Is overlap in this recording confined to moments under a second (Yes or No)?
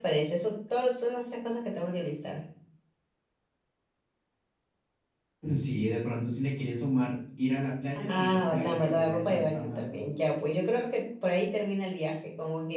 No